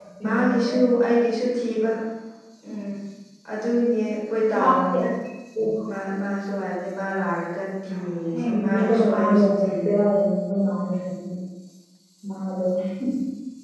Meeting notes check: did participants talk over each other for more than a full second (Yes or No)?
Yes